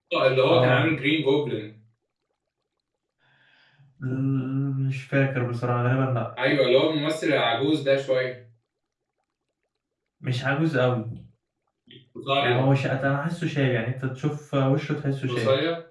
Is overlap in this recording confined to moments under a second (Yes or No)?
Yes